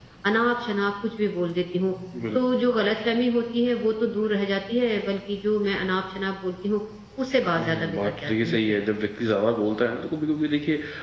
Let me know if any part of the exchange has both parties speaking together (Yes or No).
Yes